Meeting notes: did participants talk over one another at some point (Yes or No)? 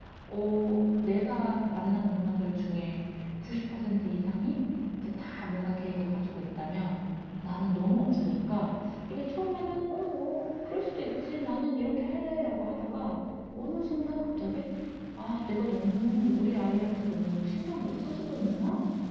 No